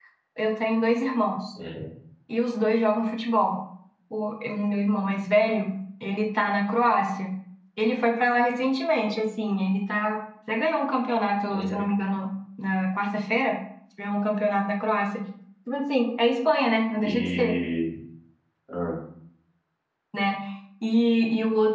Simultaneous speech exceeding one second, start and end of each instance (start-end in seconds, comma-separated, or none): none